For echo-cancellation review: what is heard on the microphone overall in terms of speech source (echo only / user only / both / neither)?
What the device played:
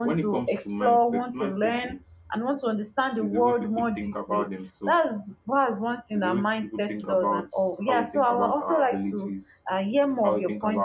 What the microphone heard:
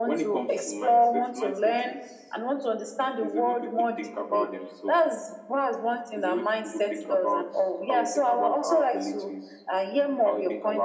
echo only